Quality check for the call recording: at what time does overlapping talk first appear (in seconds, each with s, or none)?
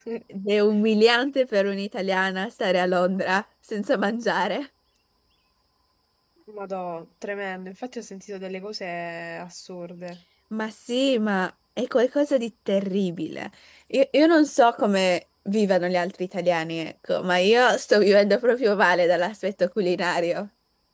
none